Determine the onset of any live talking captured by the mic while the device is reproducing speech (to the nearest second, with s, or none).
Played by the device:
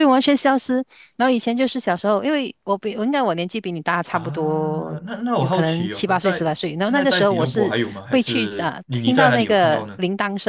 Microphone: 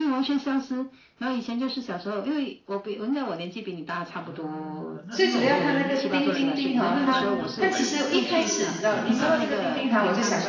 5 s